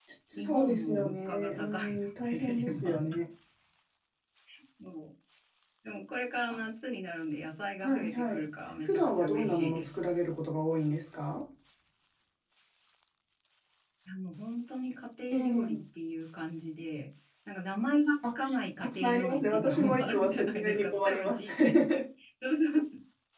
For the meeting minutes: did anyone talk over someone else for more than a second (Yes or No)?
Yes